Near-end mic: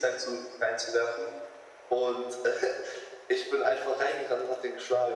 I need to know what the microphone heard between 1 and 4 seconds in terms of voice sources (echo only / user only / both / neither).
echo only